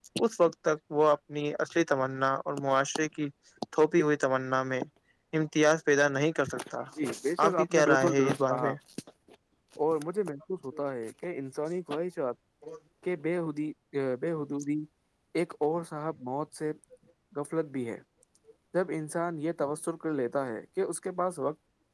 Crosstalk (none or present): present